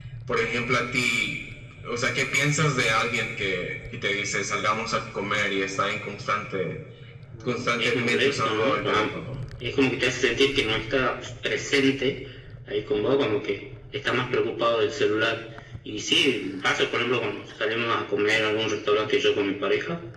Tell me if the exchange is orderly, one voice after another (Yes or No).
No